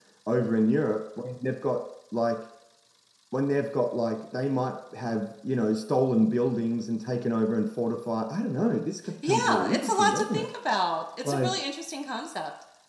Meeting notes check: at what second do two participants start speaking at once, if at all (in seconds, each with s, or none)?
9.2 s